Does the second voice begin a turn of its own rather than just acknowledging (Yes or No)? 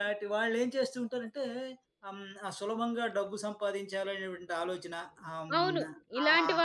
Yes